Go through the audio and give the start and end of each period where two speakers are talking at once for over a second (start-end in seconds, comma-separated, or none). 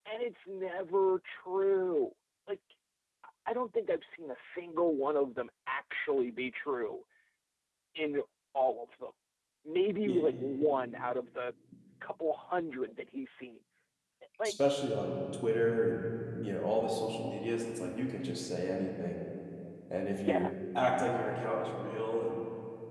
none